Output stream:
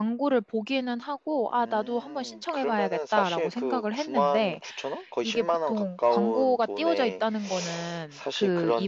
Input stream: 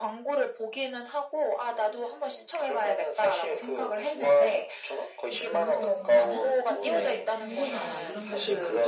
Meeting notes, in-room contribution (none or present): present